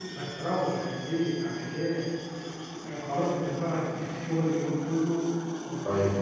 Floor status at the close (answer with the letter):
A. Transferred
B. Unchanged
B